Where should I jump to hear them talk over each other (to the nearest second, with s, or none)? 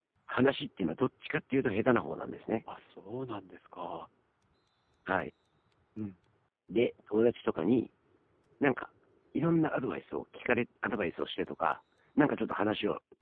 none